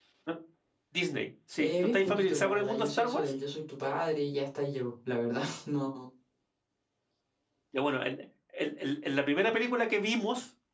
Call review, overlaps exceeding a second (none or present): present